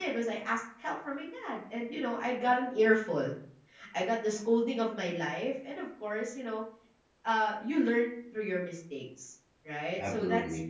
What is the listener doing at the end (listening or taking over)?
listening